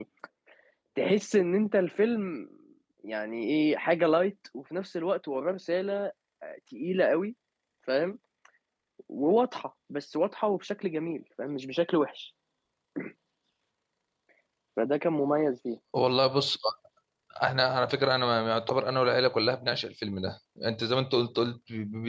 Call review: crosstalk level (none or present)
none